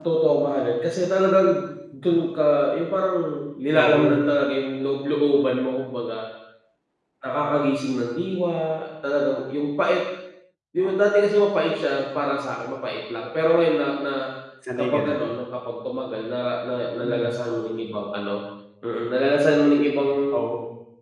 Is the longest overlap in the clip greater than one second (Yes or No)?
No